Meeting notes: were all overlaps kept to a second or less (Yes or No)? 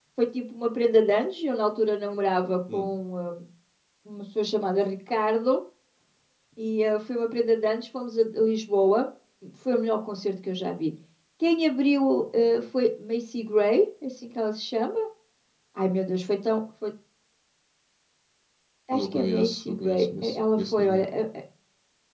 No